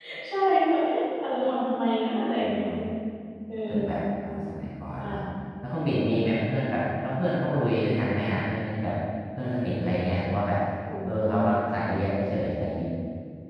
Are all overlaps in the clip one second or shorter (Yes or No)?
Yes